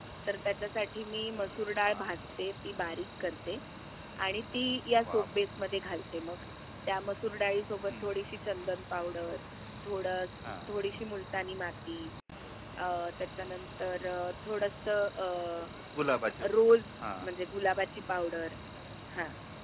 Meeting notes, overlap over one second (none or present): none